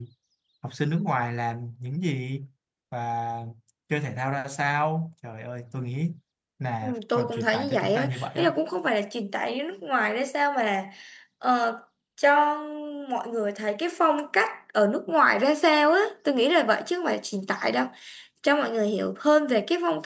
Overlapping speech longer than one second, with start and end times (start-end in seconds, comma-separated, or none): 6.8-8.5